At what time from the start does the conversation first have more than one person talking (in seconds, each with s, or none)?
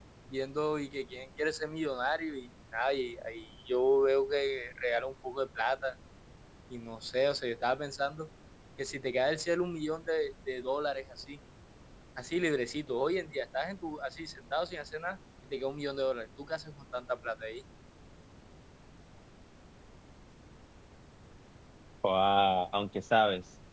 none